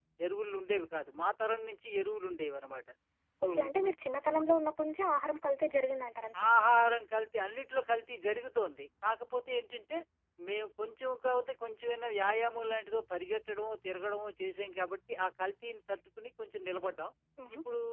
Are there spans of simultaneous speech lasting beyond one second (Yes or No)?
No